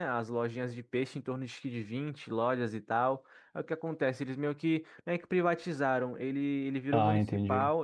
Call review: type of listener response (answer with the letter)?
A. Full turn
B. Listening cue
B